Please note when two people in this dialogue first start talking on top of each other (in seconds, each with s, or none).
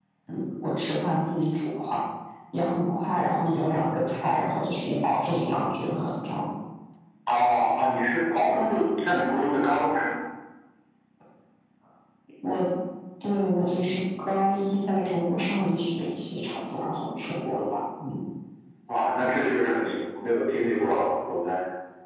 none